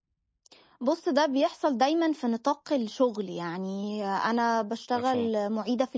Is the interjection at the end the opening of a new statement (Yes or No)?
No